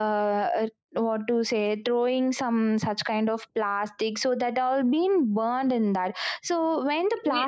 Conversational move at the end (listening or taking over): taking over